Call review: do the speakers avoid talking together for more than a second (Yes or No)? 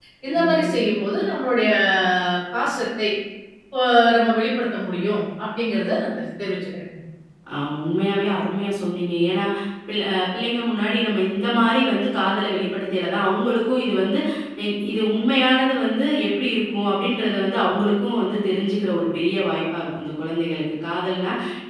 Yes